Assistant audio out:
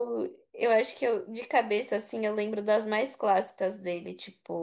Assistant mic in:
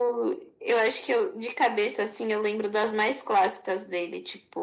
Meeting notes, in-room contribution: none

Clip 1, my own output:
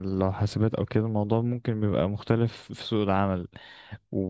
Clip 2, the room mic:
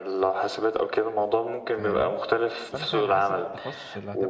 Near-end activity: present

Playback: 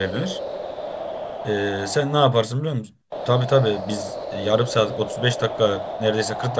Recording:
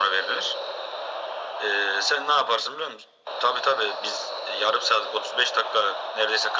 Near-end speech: none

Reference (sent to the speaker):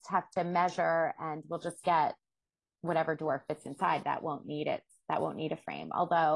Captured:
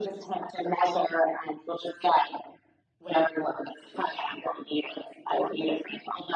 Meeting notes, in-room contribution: none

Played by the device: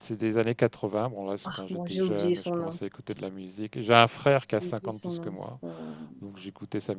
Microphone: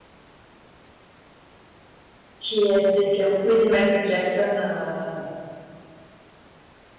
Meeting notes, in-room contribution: present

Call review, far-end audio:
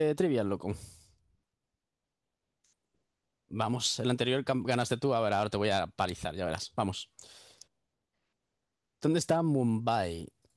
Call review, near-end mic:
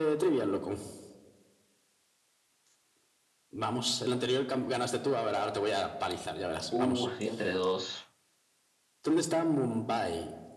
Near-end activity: present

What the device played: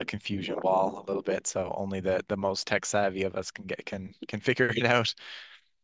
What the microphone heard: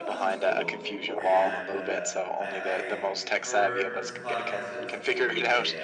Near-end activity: present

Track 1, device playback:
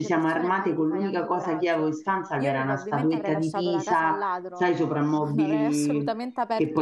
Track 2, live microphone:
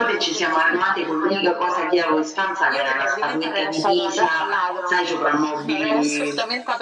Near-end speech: none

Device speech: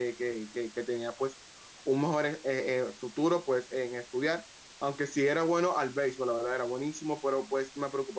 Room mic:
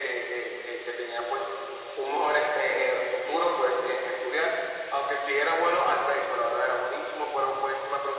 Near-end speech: none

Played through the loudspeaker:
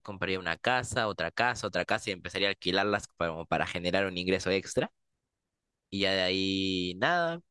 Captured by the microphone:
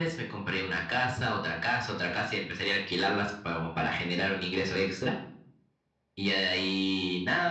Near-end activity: none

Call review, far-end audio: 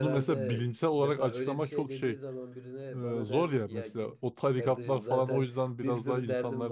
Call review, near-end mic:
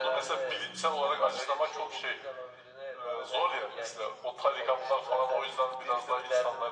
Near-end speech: none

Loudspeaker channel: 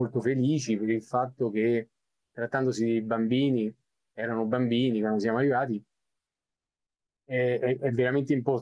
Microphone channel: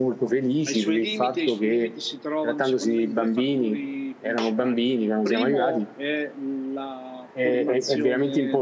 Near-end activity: present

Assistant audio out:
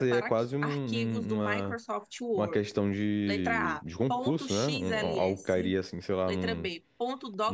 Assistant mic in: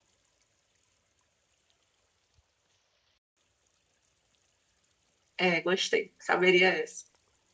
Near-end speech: present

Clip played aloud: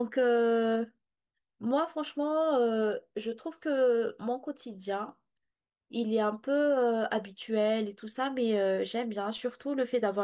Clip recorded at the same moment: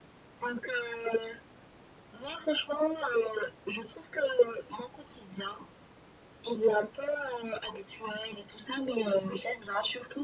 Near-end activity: none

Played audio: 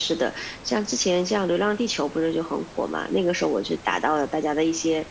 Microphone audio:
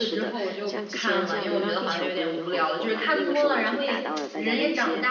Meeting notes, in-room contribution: present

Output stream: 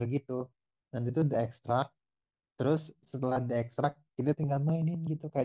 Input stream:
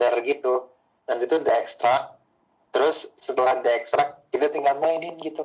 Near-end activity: none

